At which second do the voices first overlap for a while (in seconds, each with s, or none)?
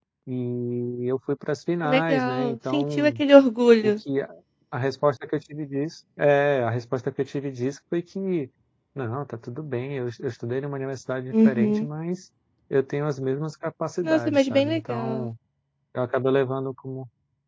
1.8 s